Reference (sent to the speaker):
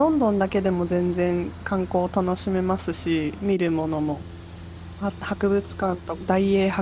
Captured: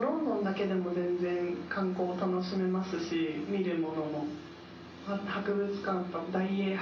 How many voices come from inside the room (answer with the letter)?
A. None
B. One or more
A